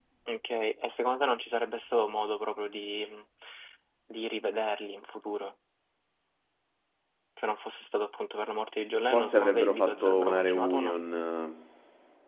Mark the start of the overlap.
9.0 s

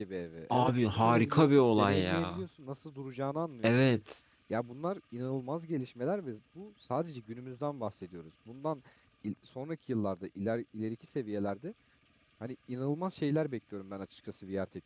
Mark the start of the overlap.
0.5 s

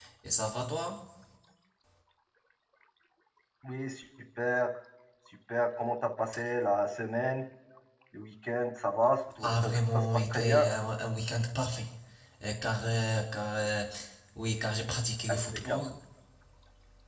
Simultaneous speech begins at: 9.4 s

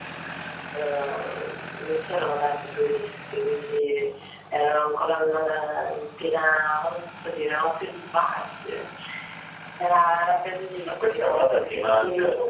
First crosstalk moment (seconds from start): 10.9 s

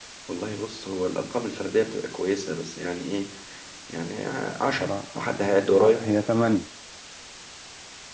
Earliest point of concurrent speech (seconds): 4.6 s

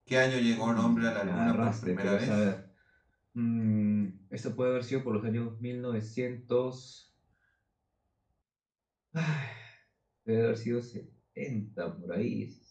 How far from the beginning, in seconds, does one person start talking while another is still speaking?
0.5 s

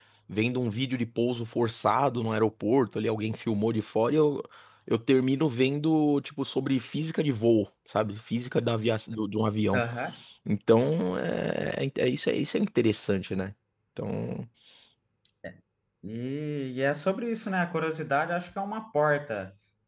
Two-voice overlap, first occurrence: none

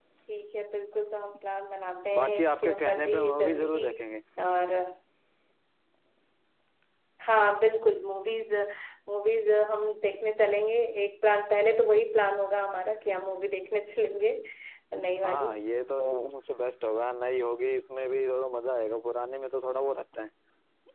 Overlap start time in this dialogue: 2.2 s

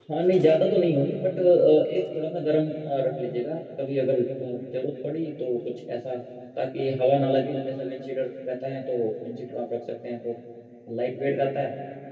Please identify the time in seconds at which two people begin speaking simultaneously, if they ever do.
none

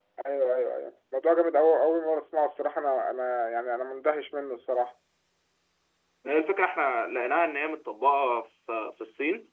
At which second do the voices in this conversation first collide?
none

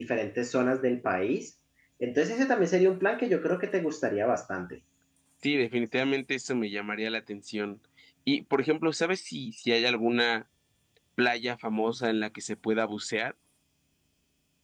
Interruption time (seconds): none

